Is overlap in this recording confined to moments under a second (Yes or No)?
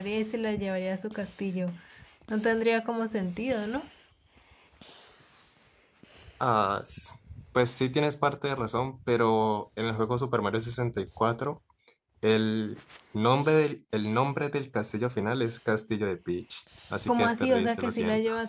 No